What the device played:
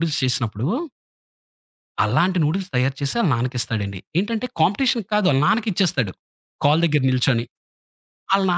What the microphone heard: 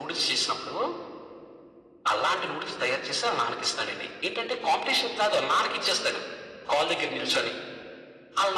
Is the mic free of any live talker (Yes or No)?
Yes